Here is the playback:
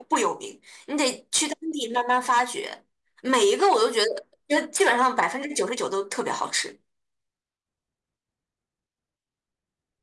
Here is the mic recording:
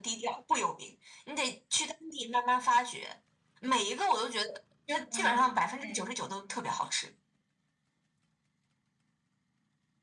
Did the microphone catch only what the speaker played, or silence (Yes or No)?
No